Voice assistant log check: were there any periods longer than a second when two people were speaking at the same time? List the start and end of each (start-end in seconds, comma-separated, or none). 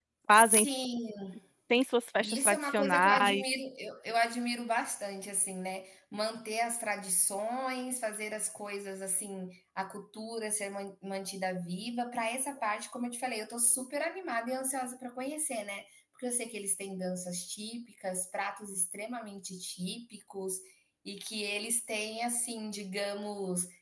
2.2-3.5